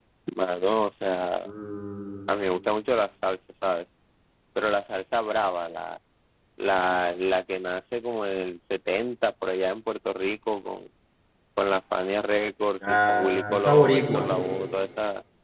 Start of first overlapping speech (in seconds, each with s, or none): 12.8 s